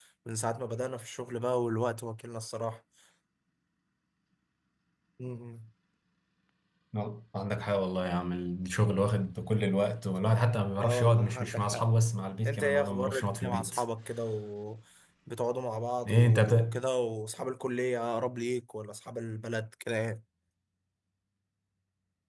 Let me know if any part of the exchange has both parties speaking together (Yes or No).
Yes